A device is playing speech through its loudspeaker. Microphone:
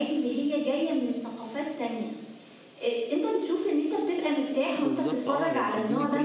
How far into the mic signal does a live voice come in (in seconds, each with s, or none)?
4.7 s